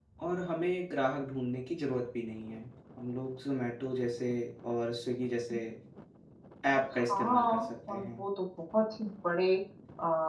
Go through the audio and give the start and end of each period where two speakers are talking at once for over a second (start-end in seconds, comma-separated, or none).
6.9-8.2